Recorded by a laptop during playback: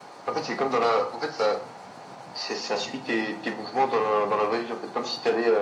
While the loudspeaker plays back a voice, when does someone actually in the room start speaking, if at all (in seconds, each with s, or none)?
none